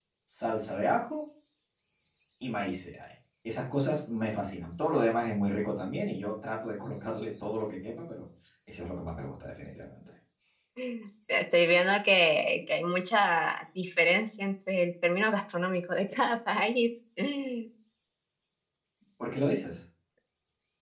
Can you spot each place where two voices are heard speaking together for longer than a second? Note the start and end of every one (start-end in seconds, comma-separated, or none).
none